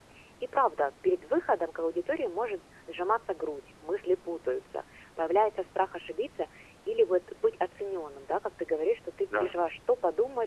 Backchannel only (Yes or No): Yes